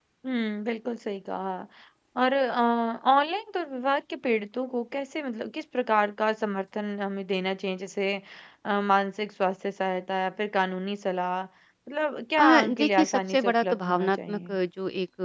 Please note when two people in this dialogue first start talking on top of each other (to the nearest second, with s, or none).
12 s